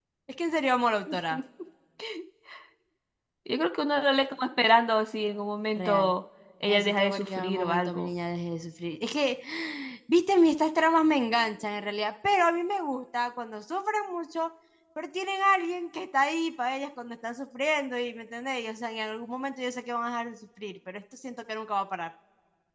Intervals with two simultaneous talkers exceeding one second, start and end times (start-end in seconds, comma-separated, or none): 6.7-8.1